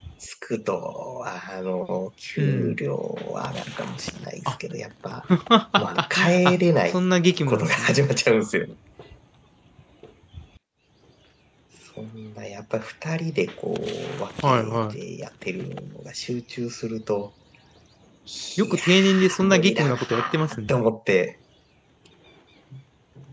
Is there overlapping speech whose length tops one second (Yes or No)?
Yes